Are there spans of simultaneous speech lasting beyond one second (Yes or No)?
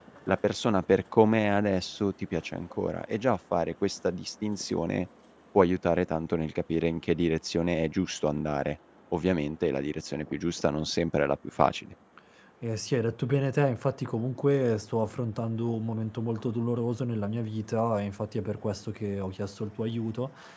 No